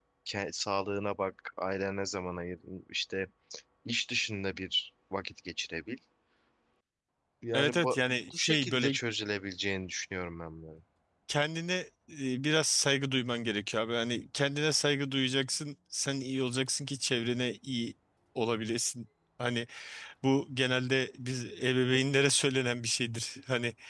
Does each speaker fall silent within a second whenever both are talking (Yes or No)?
No